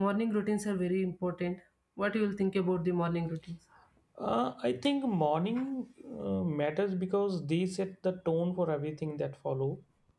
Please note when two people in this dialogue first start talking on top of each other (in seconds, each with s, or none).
none